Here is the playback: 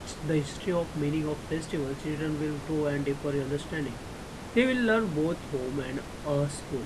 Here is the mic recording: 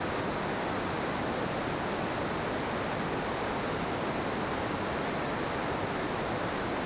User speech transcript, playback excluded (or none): none